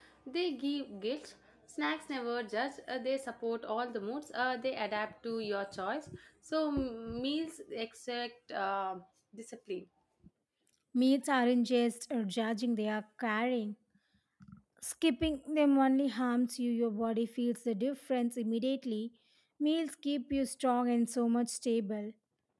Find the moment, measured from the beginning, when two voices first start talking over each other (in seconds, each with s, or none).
none